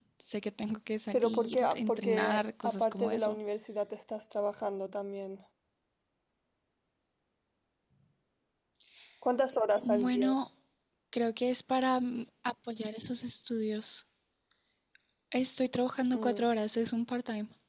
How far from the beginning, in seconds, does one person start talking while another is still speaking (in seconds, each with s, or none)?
1.1 s